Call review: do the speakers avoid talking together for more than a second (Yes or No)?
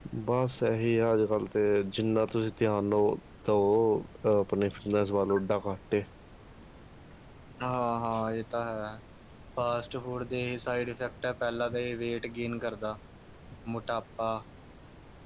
Yes